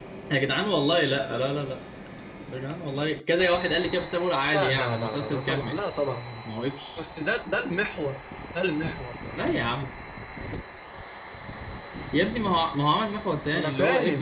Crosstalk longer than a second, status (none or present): present